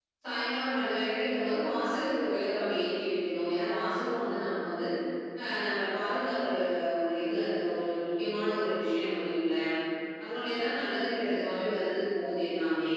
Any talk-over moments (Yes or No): No